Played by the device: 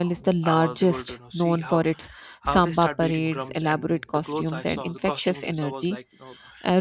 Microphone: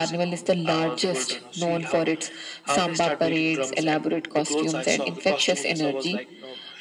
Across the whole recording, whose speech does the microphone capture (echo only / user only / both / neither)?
echo only